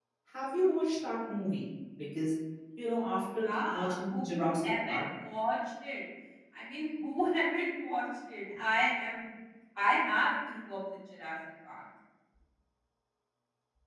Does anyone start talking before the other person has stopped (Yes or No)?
Yes